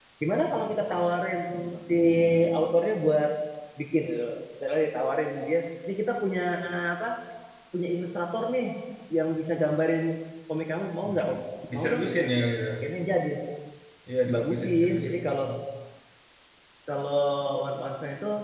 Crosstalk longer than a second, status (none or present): present